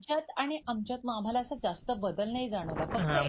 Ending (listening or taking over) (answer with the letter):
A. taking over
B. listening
A